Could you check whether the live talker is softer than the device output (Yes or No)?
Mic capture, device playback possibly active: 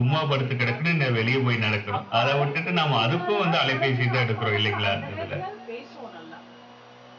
Yes